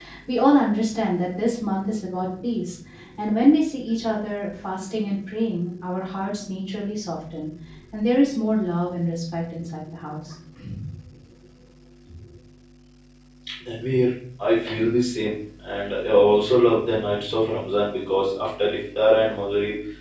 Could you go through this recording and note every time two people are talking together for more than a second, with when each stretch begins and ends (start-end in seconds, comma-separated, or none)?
none